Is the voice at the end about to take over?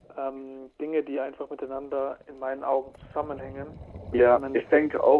Yes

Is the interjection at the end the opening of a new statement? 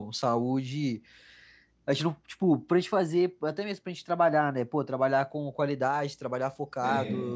No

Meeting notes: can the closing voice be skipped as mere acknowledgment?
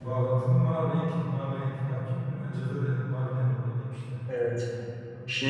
No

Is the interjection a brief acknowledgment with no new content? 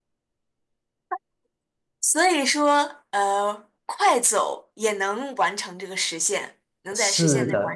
No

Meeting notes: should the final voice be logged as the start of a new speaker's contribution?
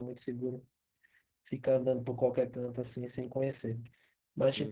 No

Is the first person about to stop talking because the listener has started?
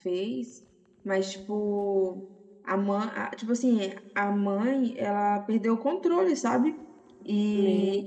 No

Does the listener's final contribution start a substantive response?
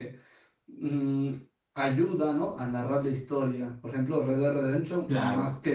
No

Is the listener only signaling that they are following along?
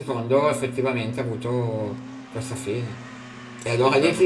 Yes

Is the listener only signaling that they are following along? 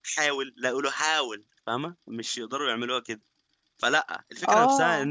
Yes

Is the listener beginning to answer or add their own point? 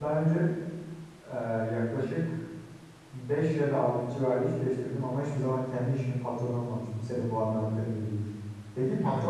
No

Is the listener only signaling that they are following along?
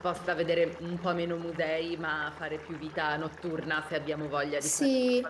No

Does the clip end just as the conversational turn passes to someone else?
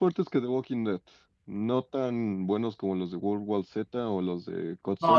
Yes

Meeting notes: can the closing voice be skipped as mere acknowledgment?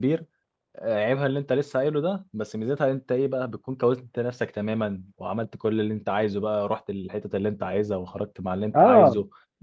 No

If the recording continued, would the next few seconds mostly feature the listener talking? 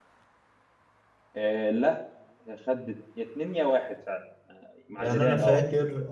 Yes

